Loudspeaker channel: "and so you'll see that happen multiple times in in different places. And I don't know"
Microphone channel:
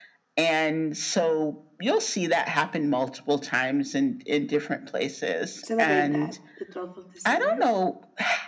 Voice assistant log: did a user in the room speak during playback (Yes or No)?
Yes